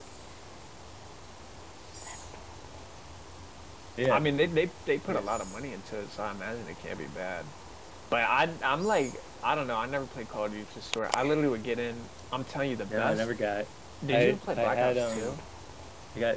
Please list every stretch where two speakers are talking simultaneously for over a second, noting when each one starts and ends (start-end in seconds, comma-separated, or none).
14.1-15.4